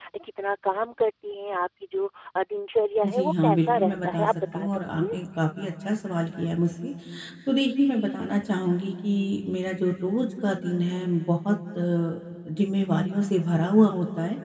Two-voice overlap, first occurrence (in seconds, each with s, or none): 3.0 s